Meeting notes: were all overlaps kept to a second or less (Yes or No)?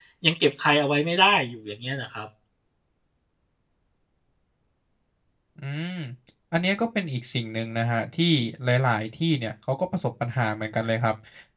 Yes